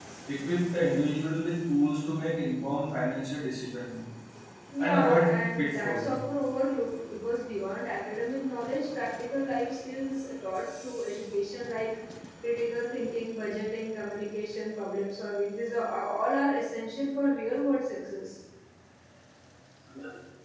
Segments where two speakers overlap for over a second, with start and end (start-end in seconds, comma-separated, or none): 4.8-6.1